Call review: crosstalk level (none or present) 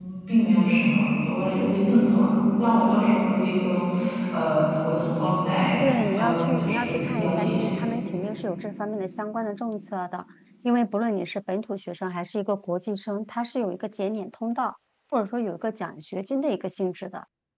present